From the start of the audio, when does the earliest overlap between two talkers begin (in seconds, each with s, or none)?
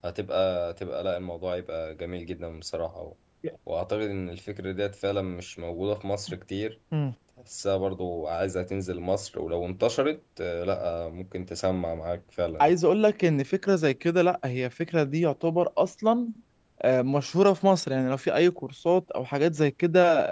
none